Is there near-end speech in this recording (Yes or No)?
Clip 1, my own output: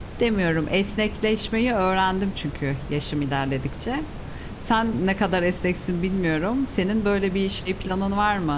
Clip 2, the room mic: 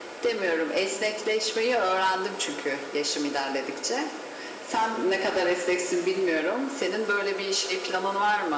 No